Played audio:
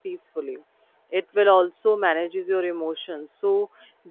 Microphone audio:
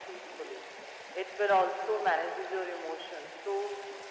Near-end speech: none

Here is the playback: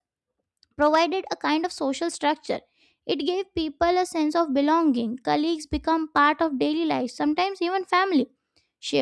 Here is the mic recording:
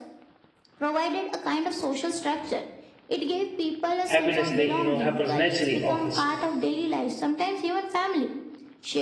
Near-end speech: present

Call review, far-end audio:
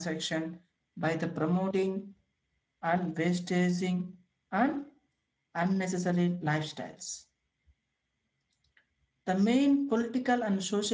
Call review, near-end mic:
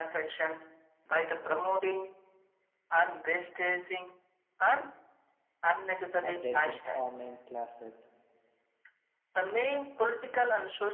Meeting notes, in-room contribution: present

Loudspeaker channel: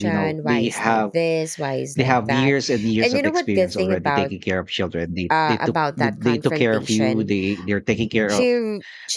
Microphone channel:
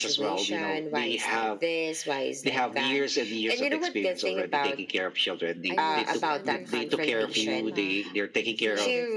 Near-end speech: present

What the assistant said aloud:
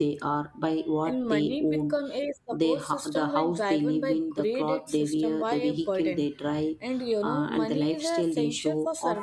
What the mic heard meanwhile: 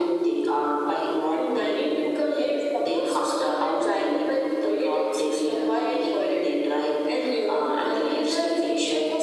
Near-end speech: none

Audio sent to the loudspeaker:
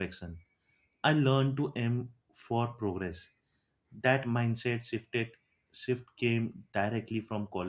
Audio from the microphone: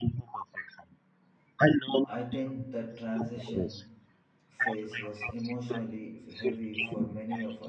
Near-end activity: present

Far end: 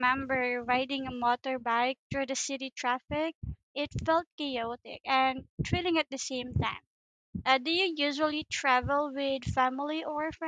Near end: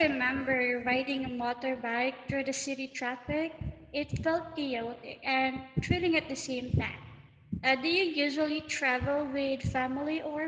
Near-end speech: none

